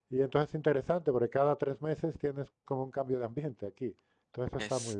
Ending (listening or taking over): taking over